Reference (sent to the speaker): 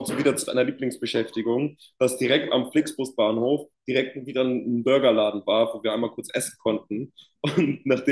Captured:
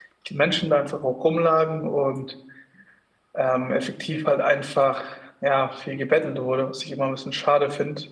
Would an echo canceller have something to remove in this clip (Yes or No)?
No